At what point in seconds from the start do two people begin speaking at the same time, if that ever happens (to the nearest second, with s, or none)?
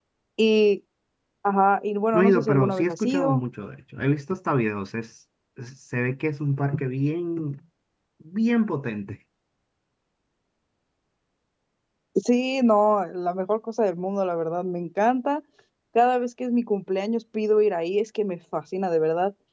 2 s